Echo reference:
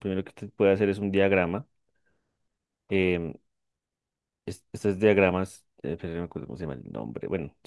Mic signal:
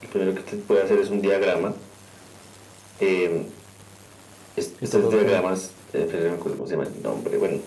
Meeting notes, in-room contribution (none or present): present